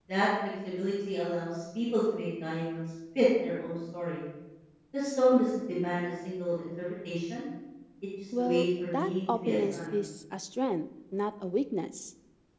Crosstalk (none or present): present